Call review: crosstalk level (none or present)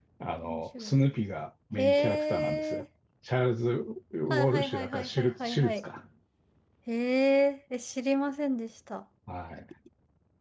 present